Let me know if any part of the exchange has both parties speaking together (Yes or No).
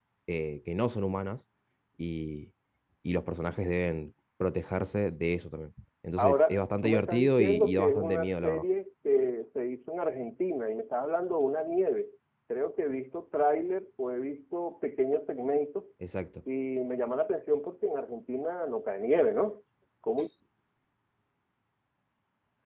Yes